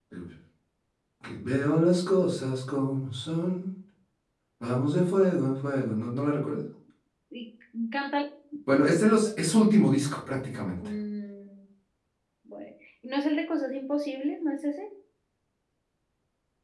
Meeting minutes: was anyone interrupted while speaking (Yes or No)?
No